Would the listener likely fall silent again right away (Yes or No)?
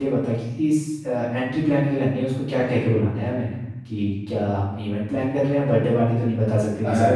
No